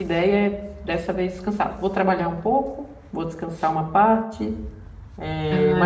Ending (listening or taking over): listening